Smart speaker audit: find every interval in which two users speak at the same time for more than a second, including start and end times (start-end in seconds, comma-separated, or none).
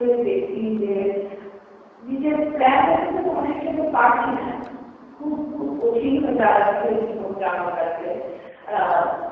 none